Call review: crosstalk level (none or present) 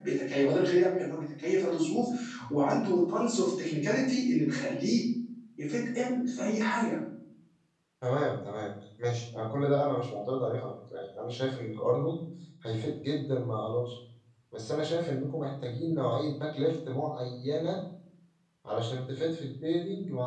none